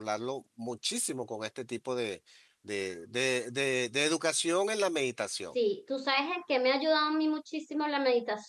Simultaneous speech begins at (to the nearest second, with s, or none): none